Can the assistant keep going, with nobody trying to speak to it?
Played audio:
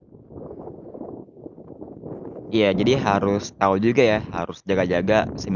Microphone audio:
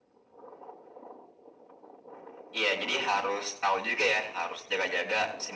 Yes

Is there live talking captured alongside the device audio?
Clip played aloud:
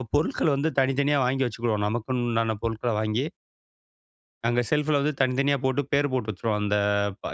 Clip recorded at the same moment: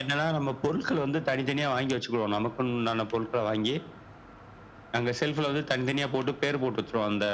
No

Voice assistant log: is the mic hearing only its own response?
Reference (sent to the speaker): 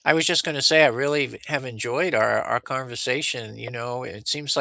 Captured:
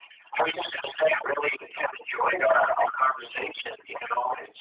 Yes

